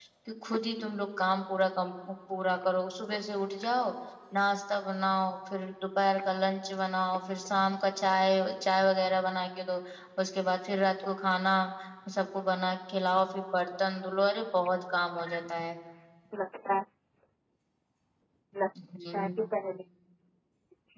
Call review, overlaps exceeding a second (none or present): none